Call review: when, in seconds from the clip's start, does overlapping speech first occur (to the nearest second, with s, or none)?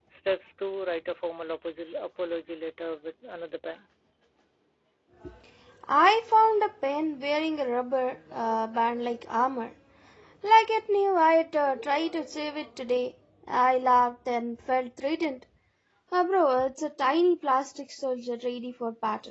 none